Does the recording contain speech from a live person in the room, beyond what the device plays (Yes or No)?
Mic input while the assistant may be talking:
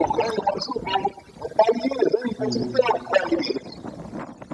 Yes